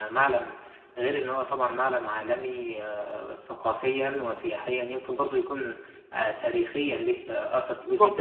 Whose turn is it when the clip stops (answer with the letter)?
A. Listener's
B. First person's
A